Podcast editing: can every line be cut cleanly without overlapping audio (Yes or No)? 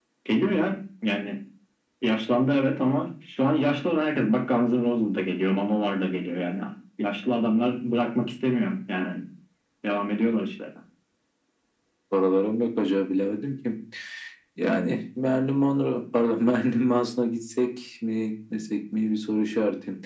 Yes